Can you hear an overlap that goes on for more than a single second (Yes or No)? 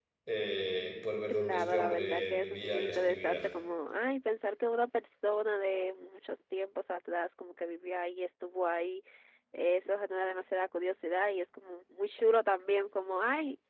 Yes